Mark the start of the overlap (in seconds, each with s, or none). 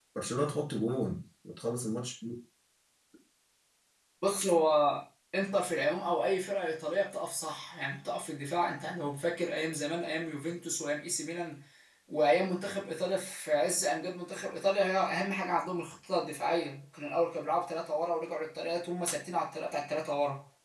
none